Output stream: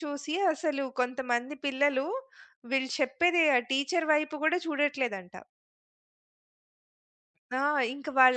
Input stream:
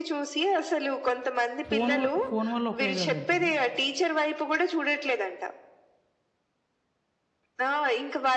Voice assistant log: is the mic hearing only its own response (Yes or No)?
No